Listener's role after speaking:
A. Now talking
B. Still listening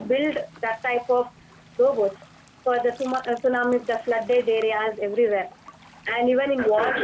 A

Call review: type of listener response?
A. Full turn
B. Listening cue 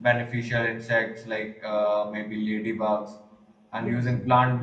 B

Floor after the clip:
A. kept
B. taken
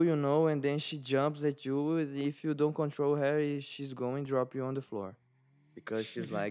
A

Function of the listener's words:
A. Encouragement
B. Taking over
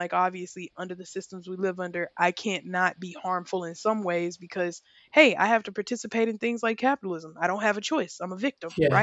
A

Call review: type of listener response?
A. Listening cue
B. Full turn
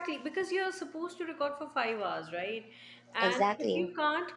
A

